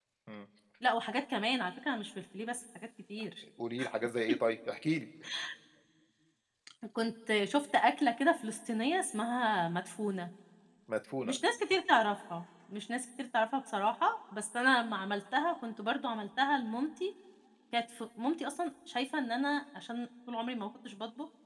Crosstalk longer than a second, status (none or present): none